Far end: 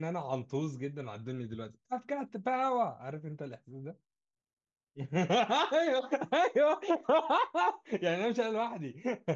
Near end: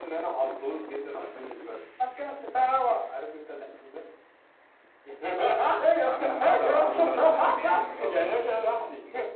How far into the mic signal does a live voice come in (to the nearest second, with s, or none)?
6 s